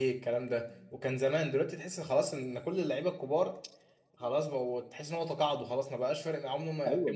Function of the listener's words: taking over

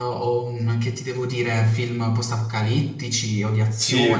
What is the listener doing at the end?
taking over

